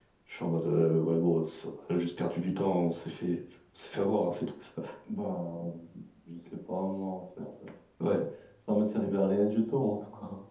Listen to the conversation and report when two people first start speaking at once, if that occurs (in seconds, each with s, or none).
none